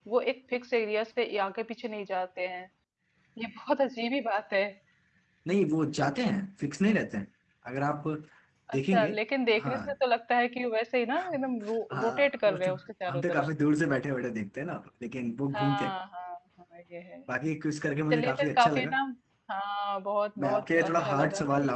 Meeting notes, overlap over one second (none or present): present